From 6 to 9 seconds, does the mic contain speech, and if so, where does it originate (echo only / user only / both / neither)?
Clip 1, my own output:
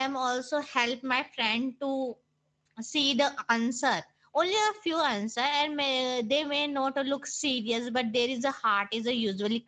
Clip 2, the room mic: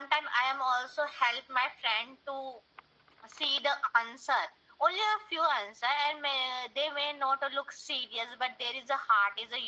echo only